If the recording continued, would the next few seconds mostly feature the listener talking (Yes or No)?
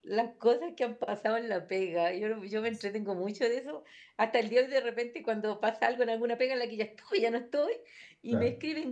No